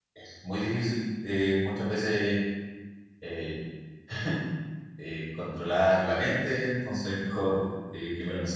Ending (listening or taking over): taking over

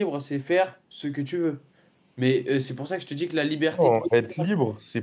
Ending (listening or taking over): taking over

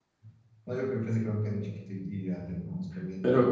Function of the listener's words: taking over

